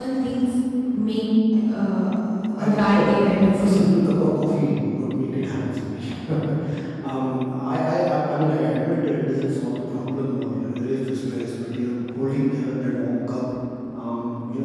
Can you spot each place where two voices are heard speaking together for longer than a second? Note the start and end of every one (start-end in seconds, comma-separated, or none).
2.6-3.9